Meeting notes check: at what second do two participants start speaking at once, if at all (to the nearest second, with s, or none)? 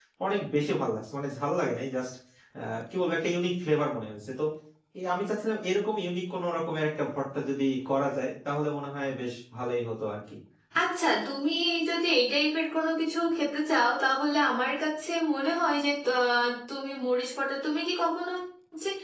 none